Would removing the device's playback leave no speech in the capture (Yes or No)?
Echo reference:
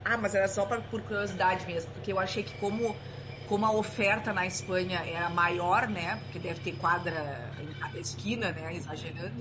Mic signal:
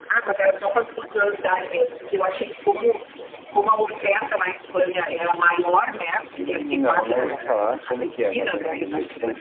No